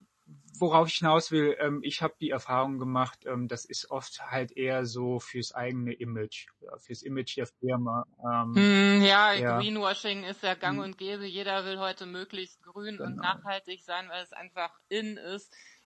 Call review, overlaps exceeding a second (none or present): none